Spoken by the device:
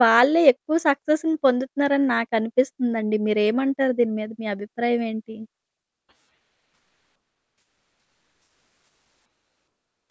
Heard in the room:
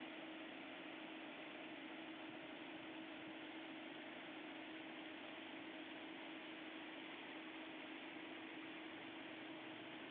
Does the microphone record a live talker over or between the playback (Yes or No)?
No